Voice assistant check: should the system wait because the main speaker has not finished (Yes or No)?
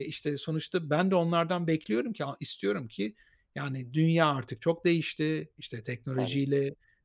Yes